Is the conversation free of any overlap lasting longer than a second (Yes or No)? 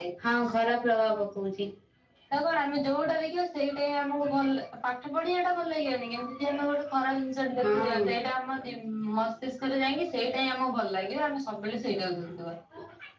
Yes